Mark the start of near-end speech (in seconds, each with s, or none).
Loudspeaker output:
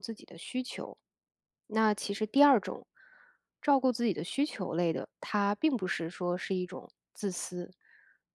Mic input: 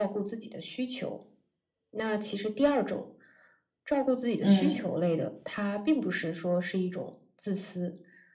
4.4 s